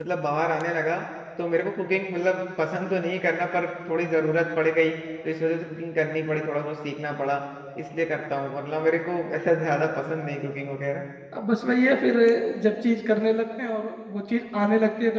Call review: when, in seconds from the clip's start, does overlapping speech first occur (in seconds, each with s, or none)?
none